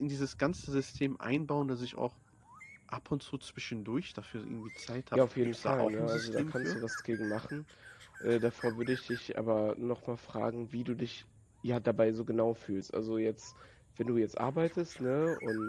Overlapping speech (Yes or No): Yes